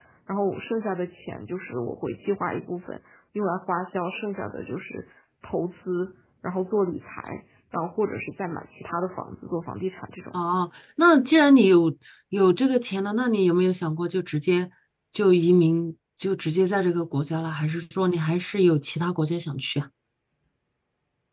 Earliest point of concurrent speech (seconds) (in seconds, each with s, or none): none